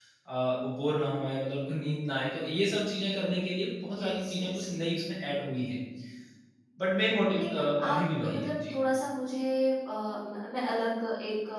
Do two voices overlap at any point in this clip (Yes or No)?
Yes